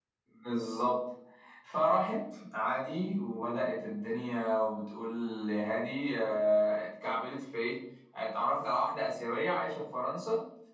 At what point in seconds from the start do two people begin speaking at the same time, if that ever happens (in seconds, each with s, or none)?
none